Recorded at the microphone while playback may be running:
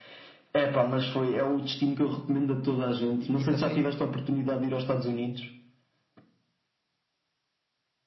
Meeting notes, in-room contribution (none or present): present